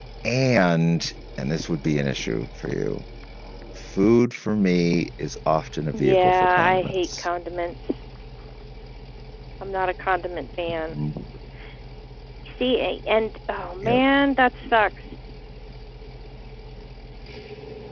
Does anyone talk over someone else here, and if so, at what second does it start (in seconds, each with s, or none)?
5.9 s